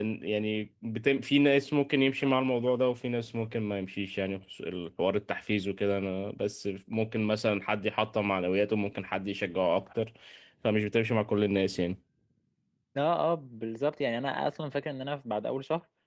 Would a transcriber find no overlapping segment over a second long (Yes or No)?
Yes